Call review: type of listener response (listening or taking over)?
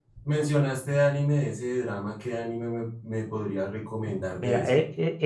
taking over